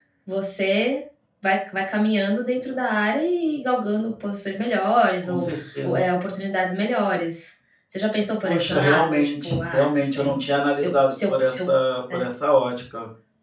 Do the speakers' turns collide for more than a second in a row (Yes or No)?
Yes